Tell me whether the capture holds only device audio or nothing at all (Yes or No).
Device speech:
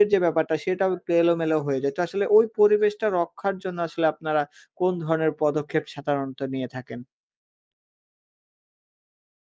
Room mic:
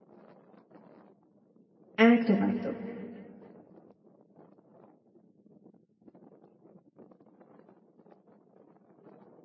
No